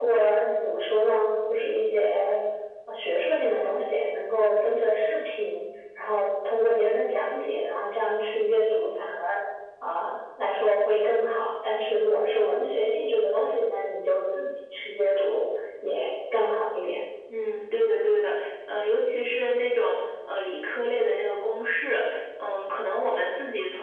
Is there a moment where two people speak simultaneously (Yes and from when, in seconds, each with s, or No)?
No